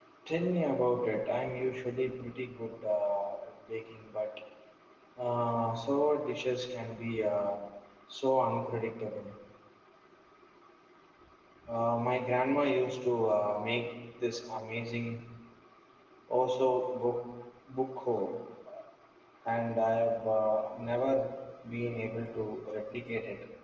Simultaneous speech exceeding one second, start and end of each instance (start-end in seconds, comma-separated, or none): none